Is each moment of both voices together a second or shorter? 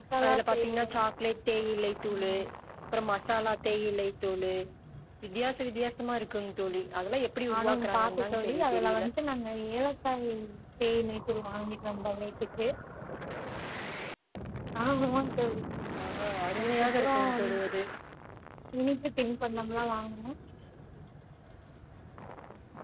No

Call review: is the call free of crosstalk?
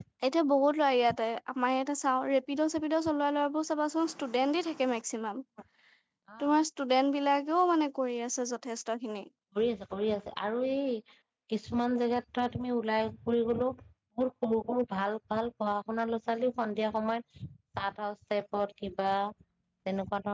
Yes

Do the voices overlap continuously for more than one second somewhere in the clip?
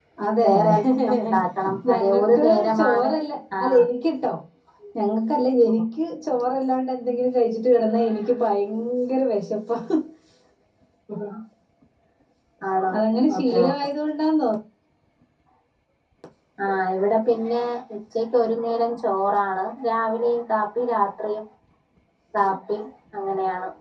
Yes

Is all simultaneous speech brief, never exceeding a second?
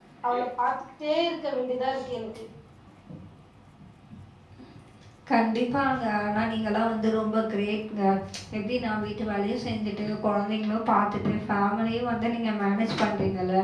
Yes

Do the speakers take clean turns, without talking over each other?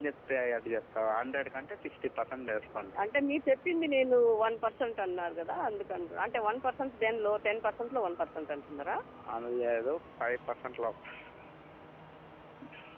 Yes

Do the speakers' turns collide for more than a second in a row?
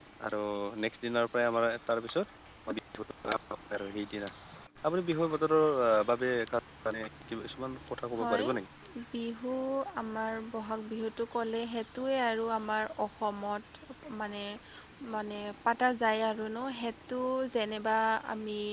No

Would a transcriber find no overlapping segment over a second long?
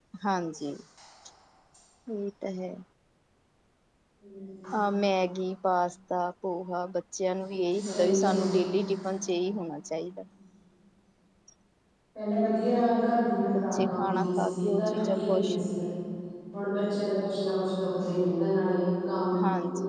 No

